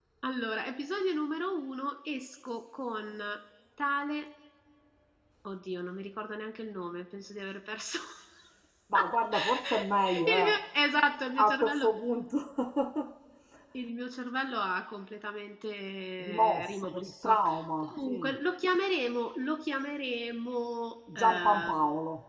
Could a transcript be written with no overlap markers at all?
No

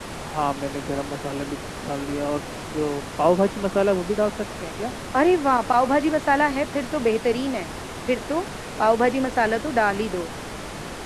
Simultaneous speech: No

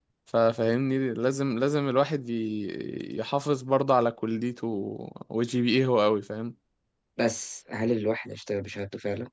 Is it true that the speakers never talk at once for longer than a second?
Yes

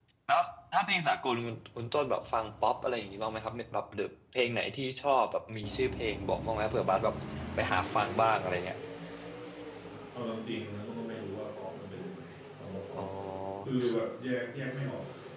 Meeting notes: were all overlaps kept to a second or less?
Yes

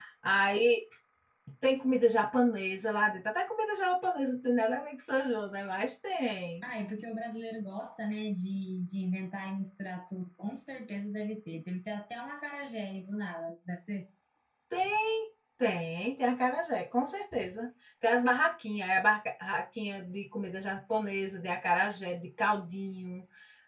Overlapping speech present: No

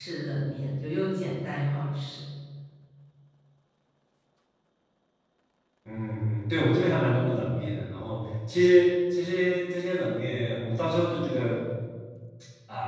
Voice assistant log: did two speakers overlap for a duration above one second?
No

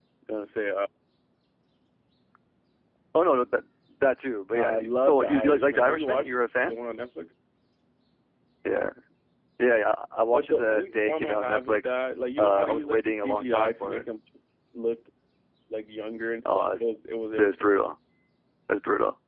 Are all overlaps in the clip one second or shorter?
No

